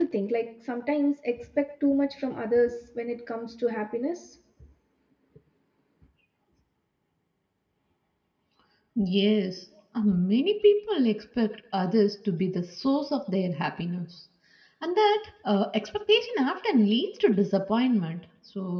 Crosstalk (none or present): none